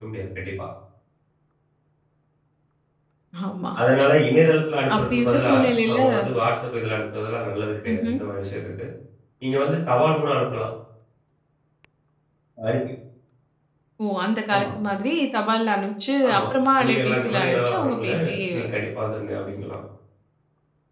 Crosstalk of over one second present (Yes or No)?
Yes